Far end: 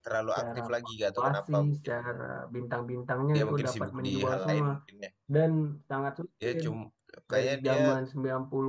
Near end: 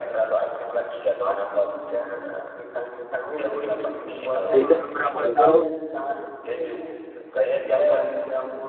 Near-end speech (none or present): present